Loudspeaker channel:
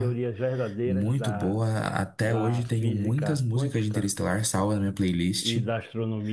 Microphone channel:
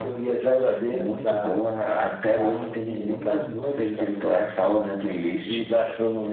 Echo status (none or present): present